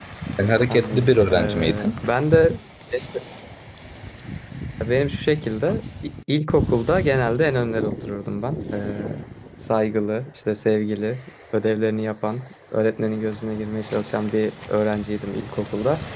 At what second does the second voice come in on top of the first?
0.7 s

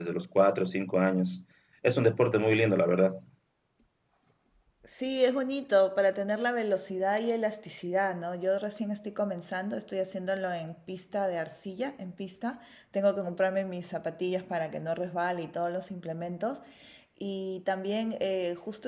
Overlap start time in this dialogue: none

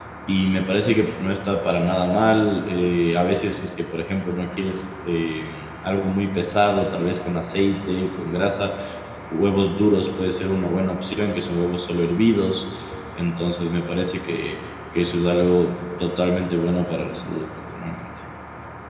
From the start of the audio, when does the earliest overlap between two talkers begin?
none

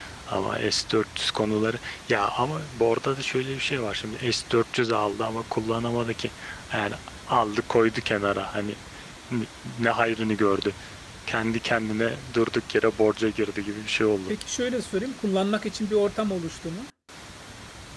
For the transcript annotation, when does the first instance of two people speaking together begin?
none

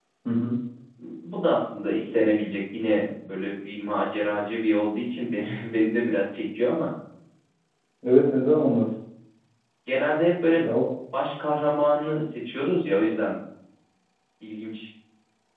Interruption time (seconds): none

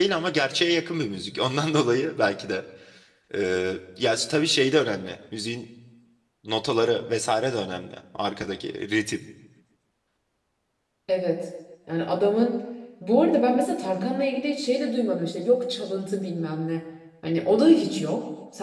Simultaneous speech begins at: none

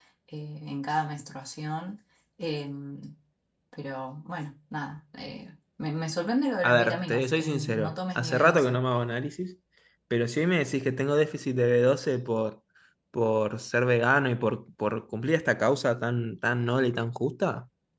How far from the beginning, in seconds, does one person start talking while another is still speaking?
6.6 s

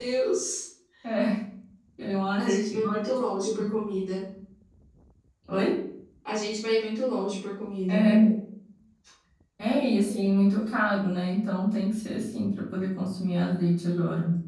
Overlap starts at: 2.4 s

